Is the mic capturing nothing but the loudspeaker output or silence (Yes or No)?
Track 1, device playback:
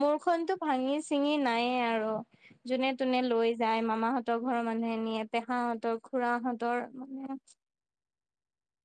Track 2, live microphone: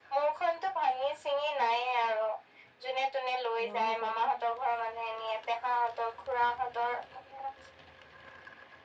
No